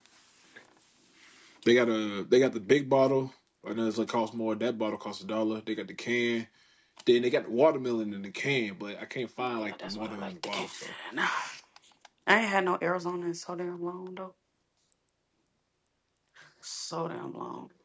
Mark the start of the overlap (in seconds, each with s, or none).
9.4 s